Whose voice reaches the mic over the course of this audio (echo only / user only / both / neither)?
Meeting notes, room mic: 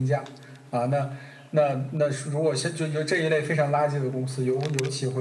echo only